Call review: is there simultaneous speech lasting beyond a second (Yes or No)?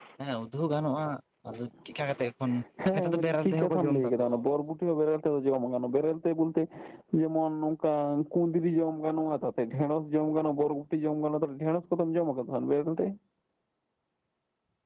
Yes